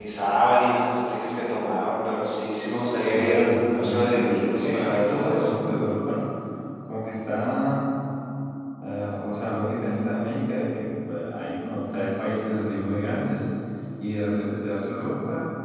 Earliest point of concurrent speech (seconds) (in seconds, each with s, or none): 3.1 s